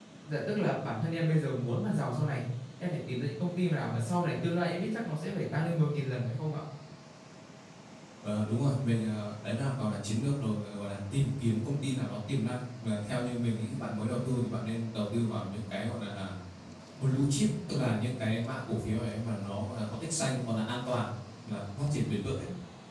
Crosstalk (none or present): none